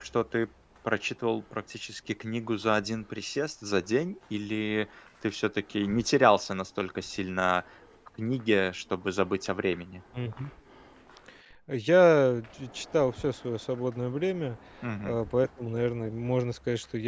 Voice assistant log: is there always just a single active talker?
Yes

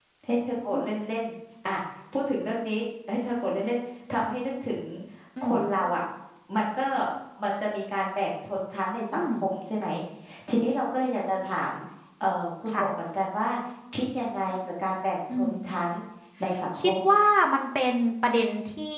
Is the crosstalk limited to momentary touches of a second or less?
Yes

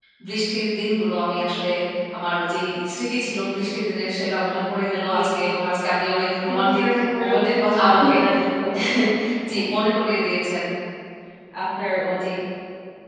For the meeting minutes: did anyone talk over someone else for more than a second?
Yes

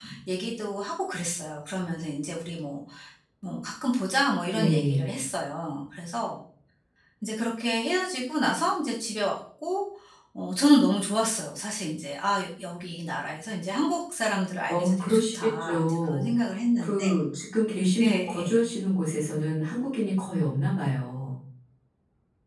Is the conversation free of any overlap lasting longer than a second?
No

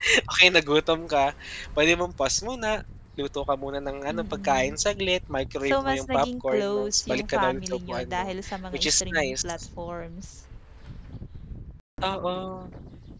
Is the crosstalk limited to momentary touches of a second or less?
No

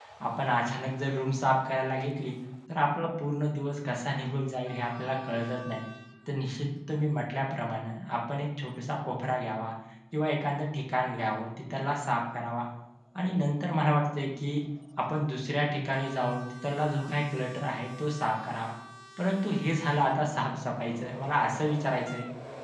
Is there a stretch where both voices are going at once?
No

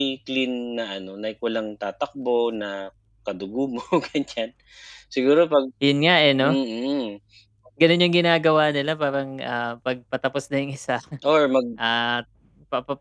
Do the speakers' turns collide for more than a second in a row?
No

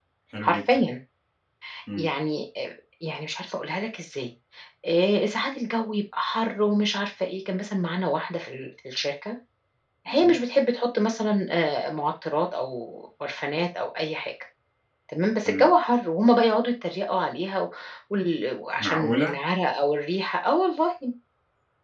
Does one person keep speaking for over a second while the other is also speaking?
No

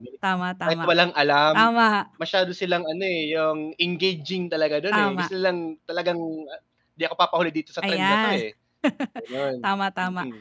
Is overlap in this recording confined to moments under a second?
Yes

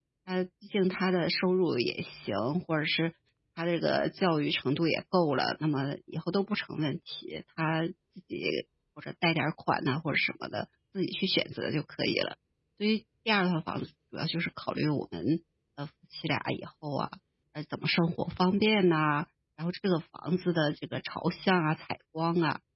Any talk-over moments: No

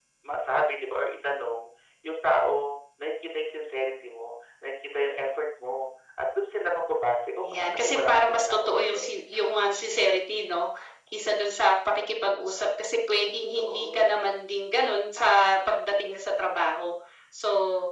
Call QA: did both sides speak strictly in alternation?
No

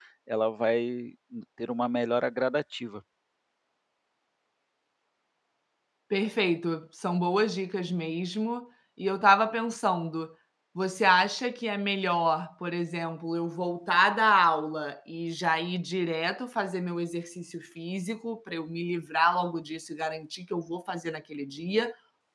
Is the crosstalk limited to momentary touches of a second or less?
Yes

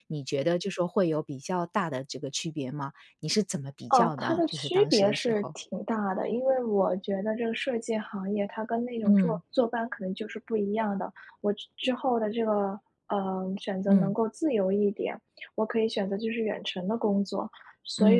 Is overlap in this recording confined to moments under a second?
No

